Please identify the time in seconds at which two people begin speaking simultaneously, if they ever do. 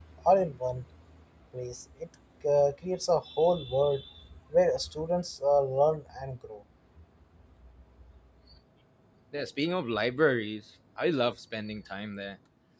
none

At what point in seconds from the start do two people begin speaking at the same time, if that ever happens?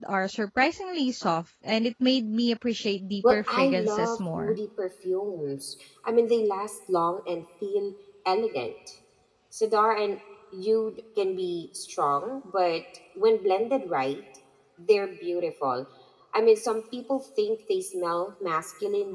3 s

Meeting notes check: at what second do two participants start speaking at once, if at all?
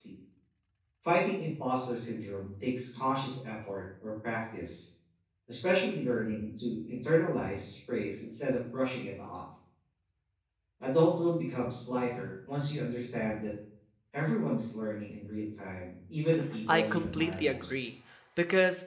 17 s

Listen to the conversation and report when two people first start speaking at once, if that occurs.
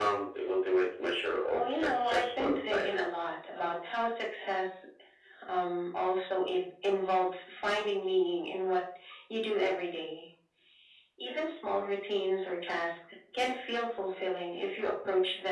2 s

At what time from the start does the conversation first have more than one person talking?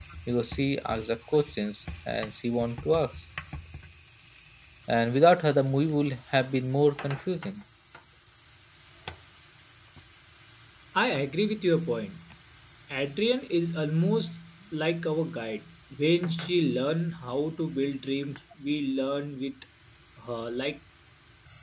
none

